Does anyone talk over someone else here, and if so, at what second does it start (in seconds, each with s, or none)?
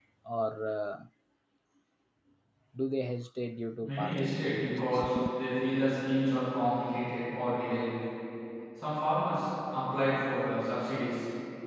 3.8 s